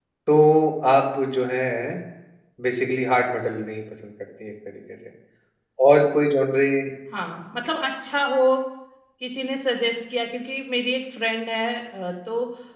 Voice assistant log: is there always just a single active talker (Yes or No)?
Yes